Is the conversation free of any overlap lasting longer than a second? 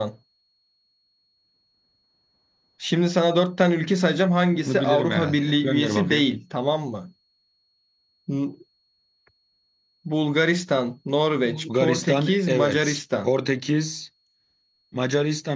No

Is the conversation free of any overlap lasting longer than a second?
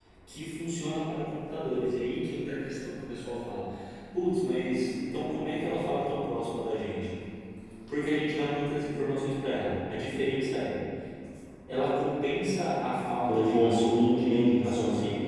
No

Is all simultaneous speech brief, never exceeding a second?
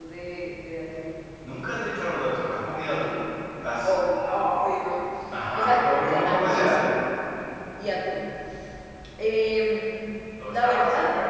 No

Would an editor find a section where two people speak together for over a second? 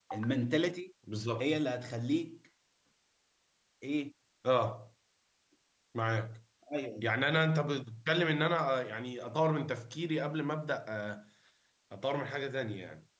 No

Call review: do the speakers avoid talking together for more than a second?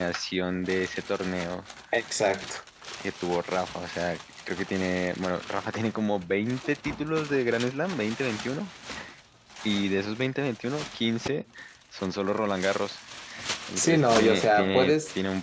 No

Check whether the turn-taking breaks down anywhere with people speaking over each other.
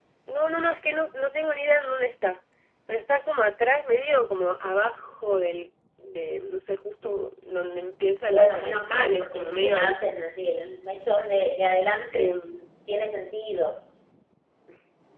Yes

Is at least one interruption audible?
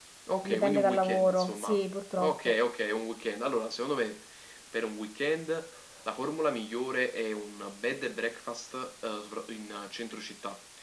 Yes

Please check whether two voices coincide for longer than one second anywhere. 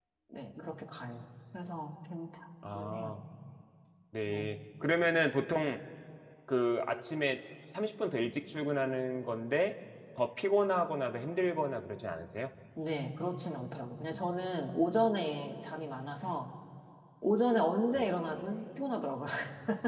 No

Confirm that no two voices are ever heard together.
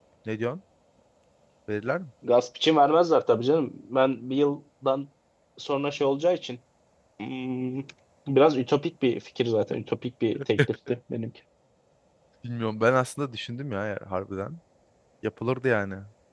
Yes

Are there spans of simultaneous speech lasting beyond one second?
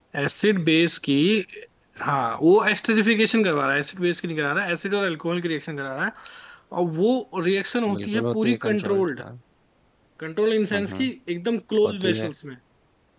Yes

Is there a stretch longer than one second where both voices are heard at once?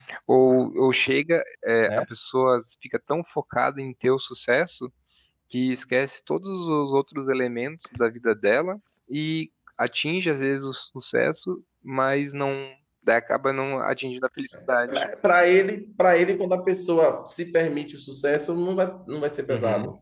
No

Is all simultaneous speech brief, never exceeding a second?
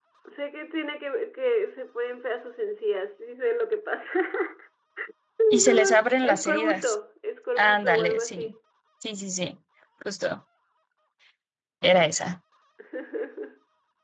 No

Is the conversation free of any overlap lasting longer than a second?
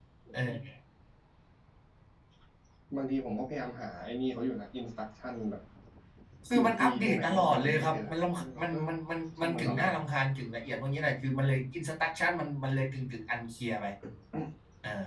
No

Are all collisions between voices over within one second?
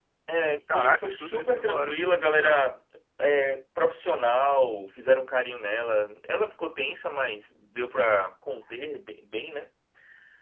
No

